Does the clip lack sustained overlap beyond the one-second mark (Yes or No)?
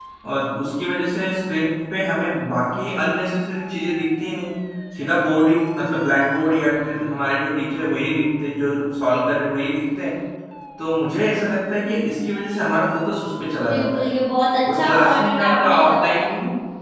No